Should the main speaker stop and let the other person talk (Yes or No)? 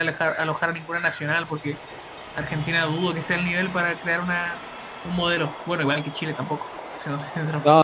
Yes